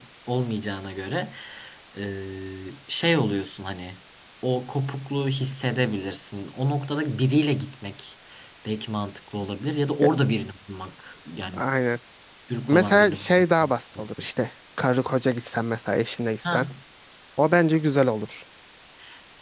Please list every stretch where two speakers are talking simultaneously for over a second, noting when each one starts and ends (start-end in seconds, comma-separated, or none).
12.7-14.3